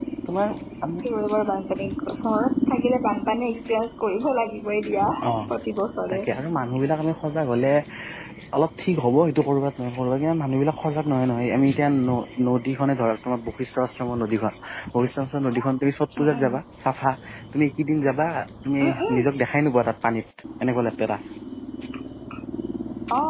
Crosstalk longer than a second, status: none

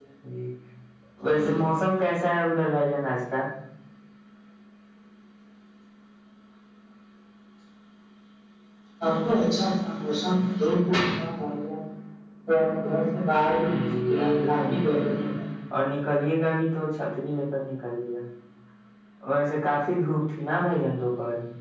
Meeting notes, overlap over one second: present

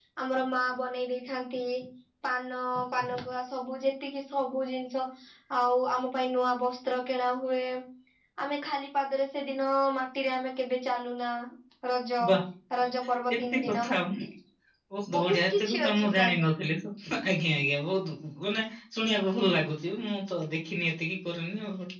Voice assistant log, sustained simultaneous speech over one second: present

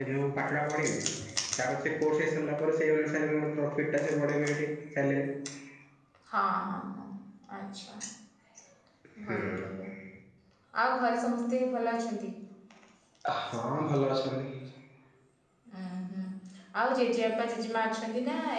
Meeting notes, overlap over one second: none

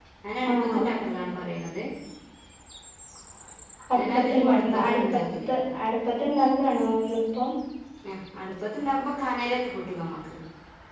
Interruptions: present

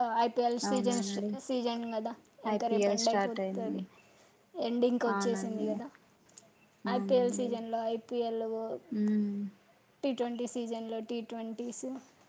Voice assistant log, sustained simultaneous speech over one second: present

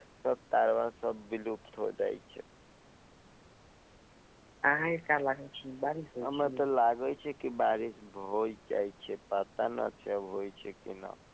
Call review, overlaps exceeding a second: none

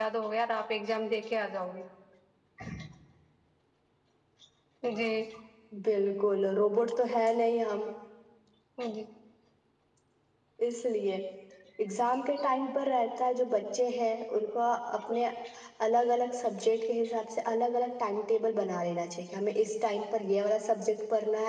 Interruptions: none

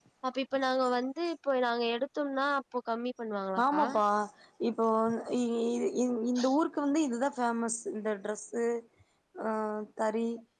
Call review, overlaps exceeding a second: none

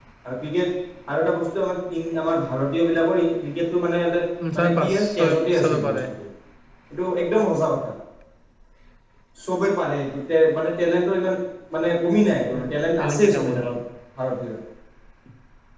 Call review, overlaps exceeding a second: present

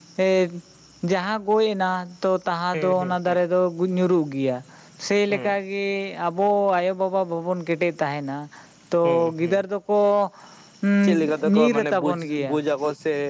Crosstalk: present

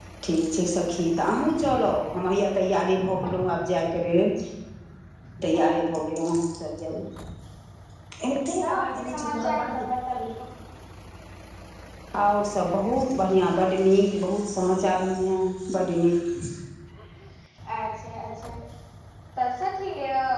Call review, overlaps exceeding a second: present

